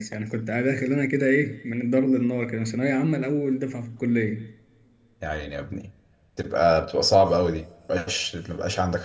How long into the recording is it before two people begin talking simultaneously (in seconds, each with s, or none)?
none